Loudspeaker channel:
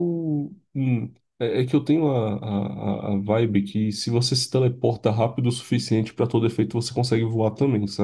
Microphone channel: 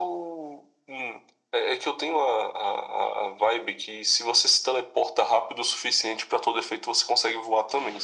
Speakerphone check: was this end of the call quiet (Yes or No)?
Yes